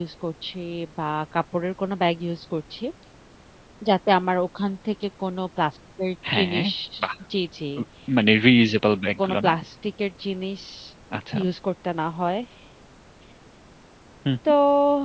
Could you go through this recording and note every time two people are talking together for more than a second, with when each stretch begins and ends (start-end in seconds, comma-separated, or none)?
none